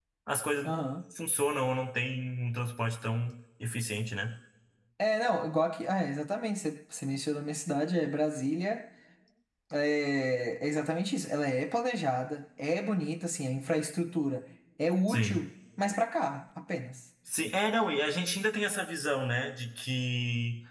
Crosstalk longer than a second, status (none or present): none